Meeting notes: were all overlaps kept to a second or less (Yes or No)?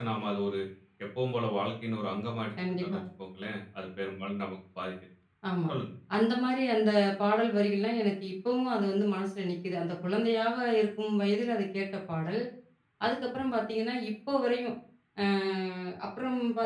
Yes